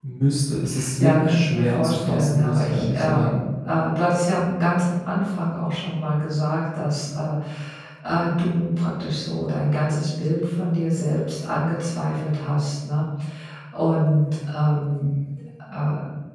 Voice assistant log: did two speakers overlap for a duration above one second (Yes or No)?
Yes